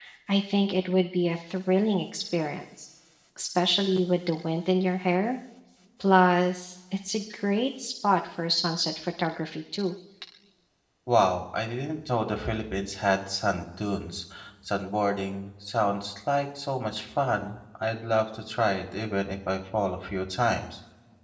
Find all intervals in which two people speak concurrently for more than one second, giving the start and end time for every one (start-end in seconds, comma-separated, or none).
none